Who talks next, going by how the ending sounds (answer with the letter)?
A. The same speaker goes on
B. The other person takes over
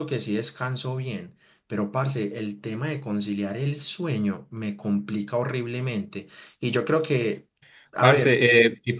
B